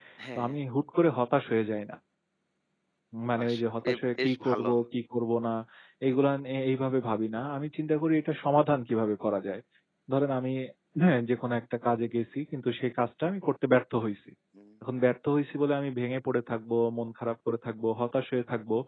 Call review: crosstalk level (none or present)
present